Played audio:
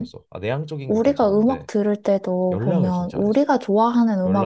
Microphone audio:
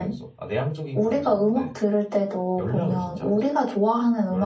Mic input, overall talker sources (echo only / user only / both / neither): echo only